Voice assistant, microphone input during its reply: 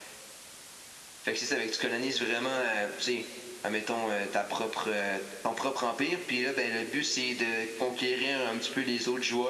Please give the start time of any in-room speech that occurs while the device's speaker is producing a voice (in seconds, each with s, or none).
none